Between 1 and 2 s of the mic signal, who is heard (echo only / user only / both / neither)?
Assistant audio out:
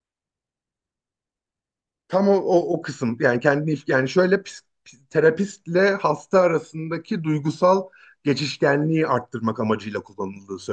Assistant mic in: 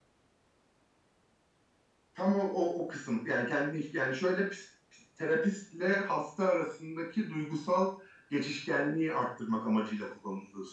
neither